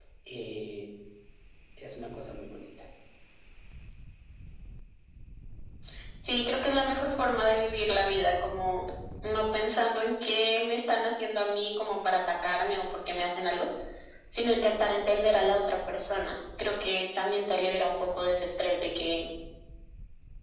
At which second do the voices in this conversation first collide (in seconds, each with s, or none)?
none